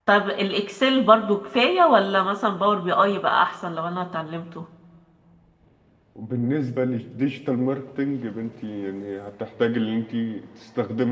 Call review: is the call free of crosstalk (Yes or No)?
Yes